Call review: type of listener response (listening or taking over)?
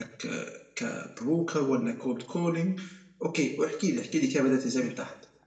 taking over